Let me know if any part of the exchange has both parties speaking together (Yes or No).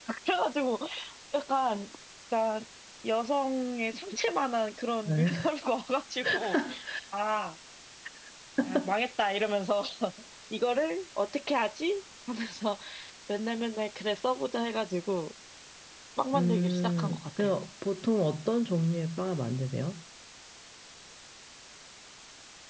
Yes